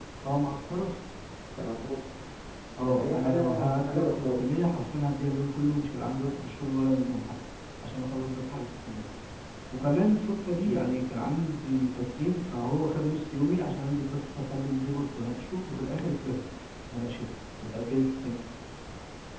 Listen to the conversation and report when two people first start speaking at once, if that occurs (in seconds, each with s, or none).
2.8 s